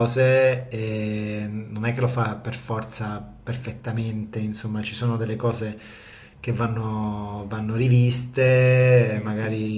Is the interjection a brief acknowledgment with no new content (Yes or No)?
Yes